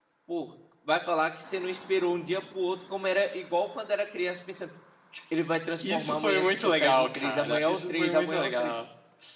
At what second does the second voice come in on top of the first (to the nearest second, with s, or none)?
6 s